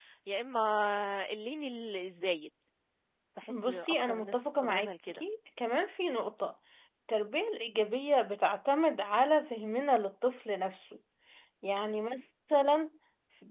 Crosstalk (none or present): present